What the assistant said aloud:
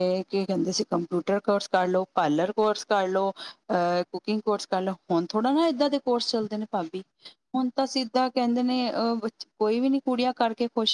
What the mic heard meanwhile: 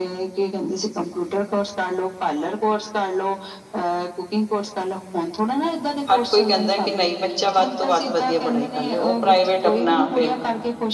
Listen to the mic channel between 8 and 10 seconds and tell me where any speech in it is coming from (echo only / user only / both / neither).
both